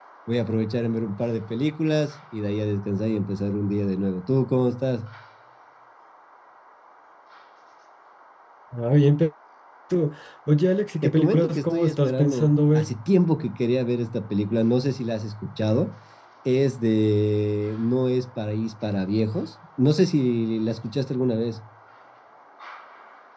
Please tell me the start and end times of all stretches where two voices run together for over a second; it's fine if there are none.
11.0-12.9

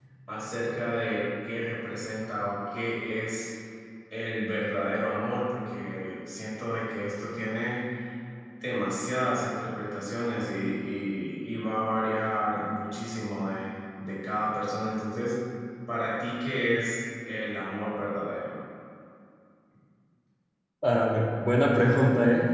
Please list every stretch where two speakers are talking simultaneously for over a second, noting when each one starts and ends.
none

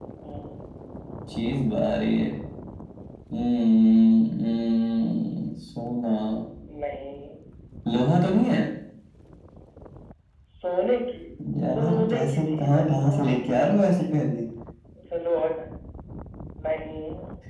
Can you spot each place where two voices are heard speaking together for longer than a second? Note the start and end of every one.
11.6-14.1

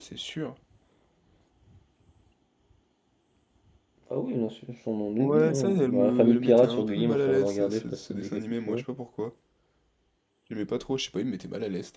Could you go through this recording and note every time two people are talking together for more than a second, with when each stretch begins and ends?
5.2-8.8

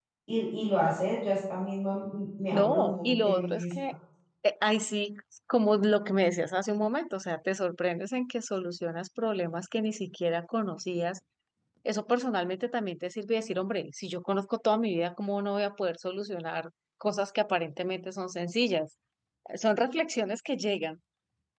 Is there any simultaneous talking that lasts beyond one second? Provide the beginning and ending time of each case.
2.5-3.7

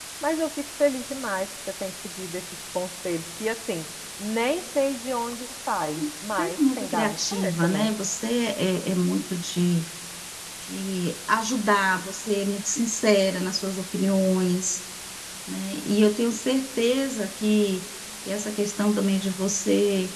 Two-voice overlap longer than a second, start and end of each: 6.4-7.9

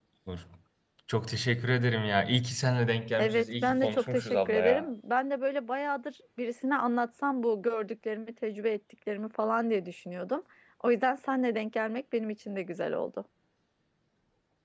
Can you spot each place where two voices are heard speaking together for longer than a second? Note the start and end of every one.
3.2-4.9

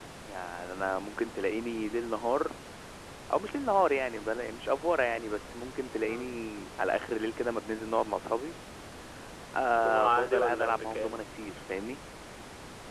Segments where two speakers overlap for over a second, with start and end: 9.8-11.2

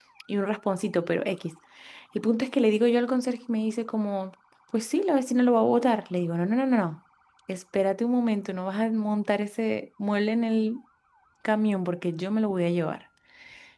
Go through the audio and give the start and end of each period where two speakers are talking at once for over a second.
none

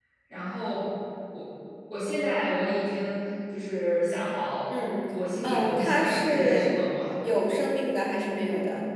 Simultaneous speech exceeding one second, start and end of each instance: 5.4-6.7

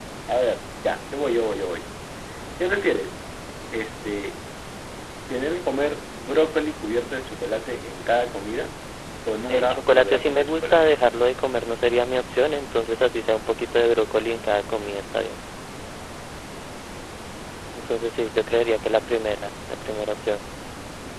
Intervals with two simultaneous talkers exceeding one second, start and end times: 9.5-10.9

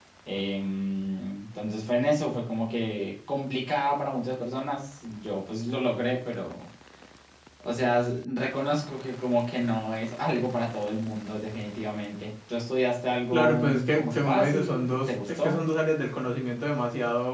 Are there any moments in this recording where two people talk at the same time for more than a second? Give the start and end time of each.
13.3-15.6

